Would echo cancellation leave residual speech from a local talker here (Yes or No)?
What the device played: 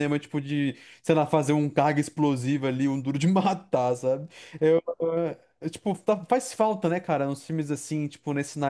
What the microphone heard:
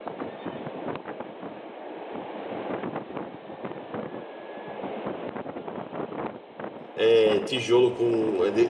Yes